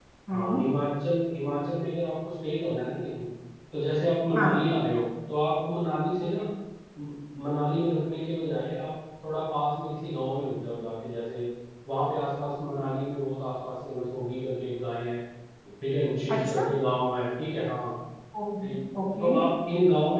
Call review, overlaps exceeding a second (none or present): none